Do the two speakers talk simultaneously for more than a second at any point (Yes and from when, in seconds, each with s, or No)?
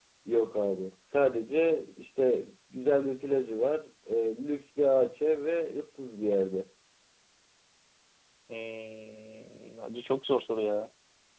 No